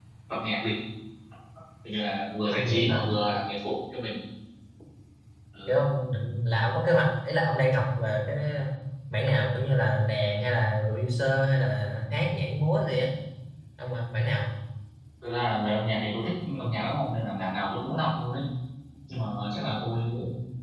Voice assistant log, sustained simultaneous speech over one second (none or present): none